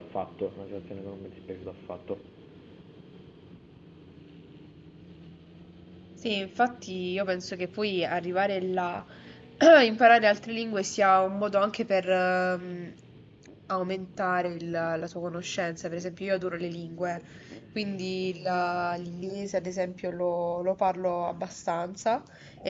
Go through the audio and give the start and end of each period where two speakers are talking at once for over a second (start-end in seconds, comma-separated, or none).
none